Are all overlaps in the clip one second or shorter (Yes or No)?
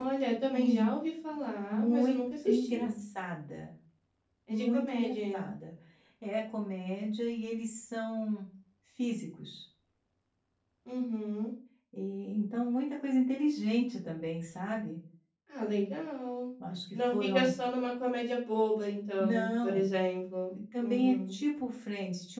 No